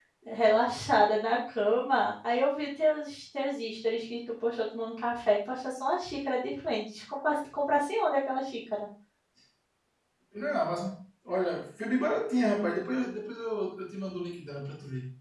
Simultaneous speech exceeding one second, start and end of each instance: none

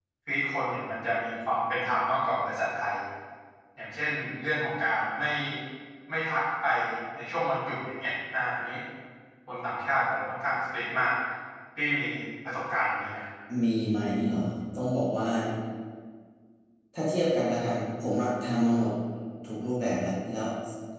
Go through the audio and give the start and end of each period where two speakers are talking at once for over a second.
none

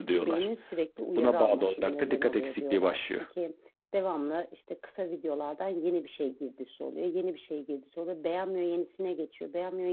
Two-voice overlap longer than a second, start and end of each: 1.2-3.2

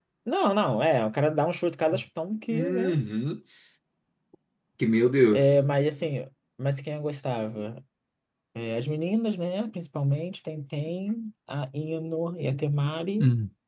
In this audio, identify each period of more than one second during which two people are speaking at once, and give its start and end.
none

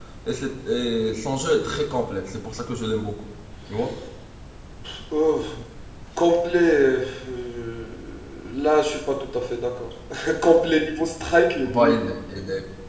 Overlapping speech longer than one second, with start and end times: none

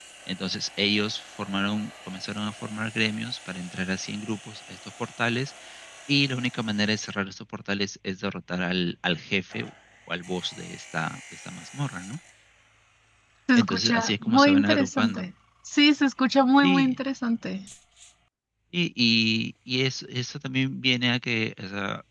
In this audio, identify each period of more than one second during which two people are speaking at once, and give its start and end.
13.6-15.2

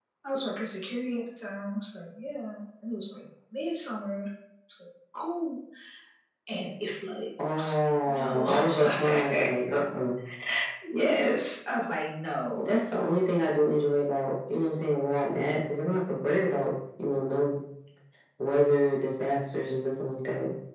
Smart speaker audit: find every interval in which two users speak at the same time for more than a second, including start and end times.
7.5-9.5

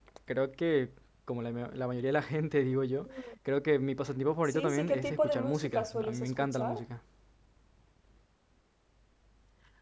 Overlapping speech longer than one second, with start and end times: 4.5-6.8

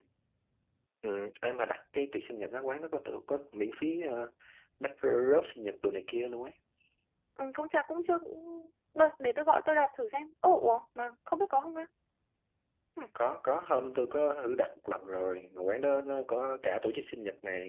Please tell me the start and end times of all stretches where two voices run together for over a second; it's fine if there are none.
none

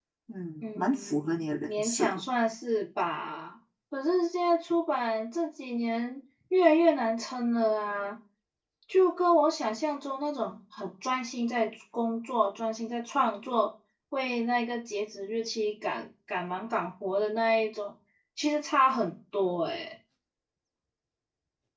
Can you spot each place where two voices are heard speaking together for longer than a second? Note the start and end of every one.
0.8-2.1

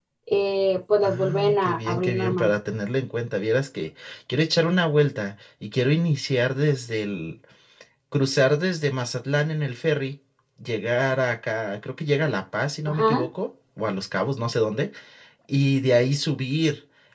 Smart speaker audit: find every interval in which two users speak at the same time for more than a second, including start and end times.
1.0-2.5

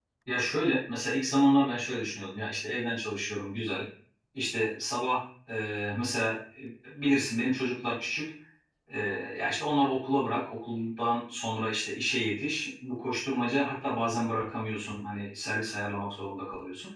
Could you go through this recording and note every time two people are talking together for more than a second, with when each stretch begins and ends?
none

